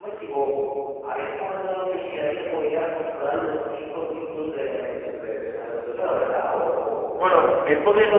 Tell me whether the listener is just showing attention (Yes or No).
No